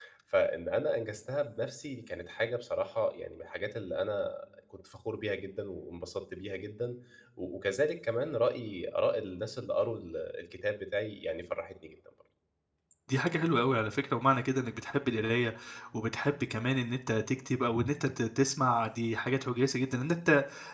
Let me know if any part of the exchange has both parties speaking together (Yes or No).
No